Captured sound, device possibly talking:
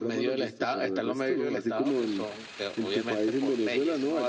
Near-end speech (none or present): none